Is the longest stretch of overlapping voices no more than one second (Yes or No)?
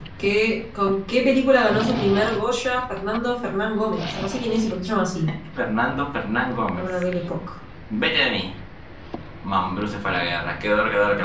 Yes